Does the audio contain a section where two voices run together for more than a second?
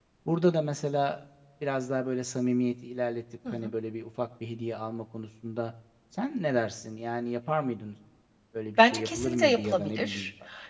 Yes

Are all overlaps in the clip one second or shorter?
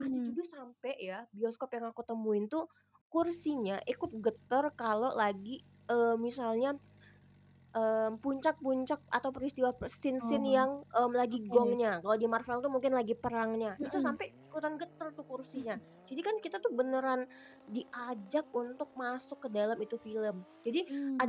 Yes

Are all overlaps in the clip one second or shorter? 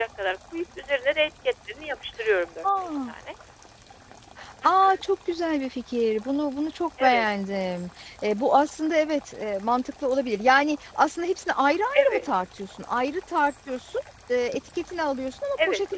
Yes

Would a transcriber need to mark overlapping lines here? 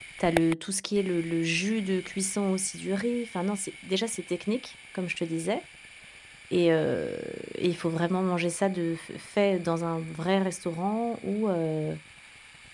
No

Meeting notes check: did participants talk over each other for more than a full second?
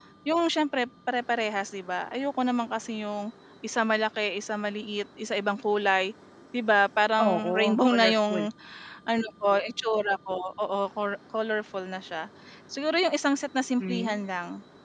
Yes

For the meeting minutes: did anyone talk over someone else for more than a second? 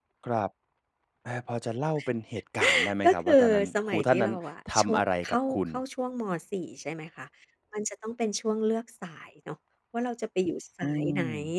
Yes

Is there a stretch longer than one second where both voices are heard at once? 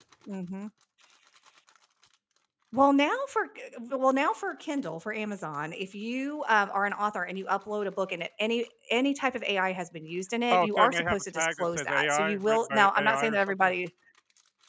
Yes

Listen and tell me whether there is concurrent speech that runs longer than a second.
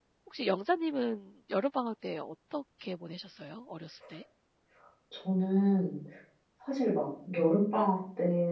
No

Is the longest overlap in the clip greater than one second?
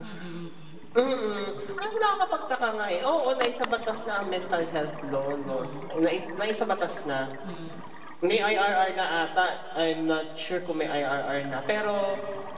No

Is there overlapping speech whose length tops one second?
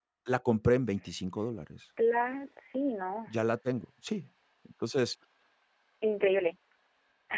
No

